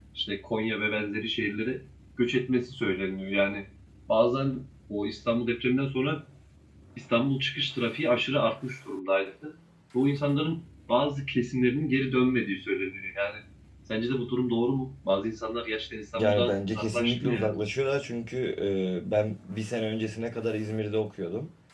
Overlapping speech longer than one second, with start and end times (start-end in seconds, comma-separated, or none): 16.1-17.5